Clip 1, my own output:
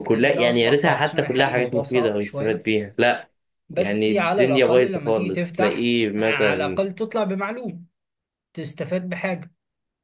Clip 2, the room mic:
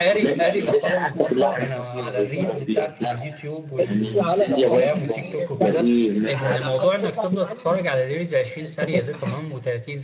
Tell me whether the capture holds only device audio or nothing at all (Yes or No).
No